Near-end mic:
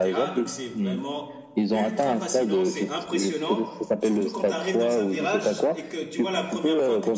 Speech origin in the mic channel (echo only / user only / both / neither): both